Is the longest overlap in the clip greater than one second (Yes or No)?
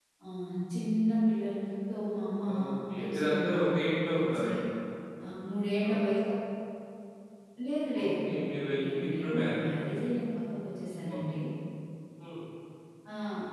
Yes